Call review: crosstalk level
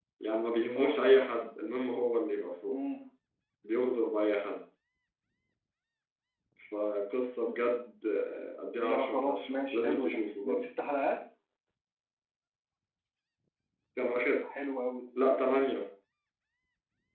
present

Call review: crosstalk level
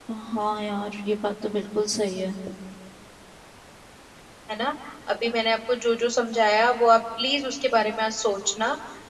none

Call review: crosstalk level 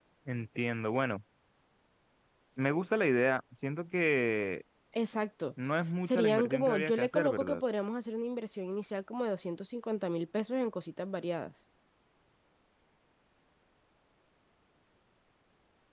present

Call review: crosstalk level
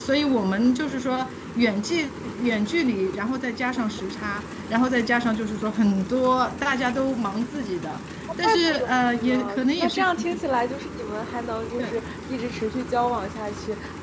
present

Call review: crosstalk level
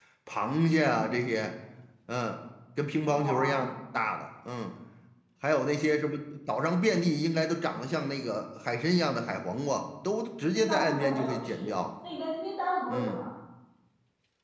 present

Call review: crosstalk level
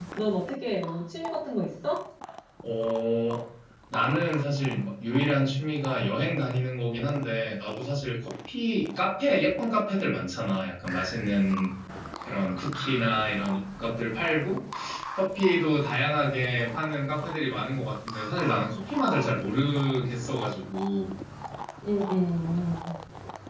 none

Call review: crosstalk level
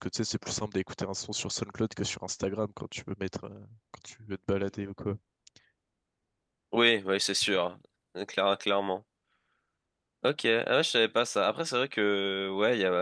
none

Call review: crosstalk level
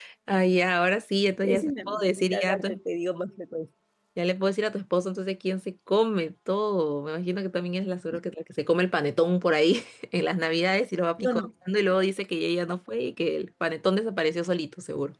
present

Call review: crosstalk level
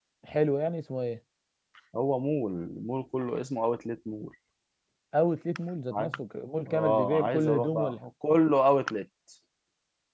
present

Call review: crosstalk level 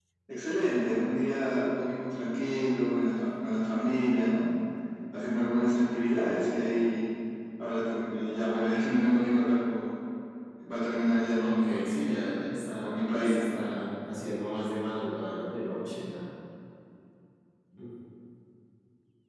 present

